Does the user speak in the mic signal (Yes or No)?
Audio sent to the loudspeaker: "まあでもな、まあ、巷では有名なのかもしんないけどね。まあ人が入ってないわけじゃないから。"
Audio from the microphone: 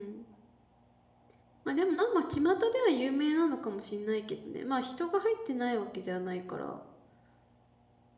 No